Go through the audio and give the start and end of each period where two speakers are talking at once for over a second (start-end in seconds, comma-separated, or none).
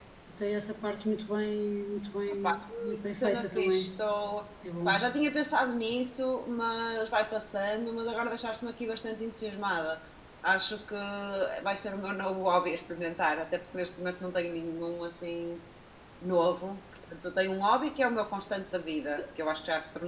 2.4-3.9